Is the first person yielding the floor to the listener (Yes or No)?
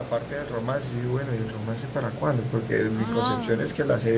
No